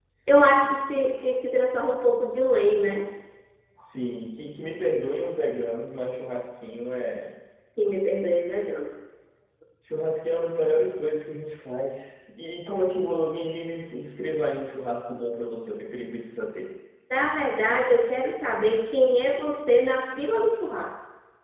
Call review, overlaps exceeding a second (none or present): none